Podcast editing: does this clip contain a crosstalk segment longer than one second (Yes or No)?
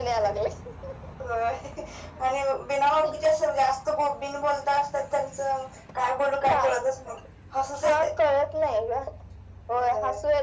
No